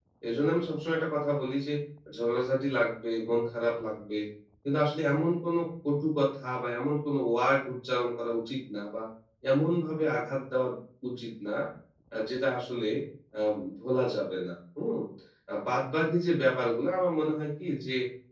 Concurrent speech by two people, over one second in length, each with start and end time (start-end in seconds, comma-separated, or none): none